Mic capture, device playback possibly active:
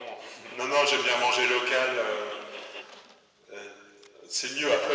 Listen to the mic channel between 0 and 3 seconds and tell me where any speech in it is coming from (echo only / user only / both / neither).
echo only